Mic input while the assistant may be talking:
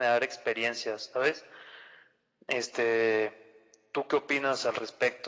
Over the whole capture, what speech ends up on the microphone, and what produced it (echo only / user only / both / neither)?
echo only